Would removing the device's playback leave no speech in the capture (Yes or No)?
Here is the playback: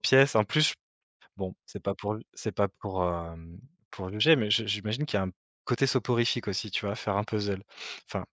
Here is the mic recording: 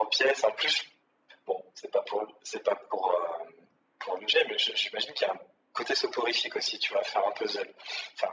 Yes